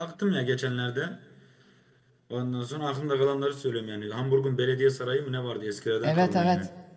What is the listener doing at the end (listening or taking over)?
taking over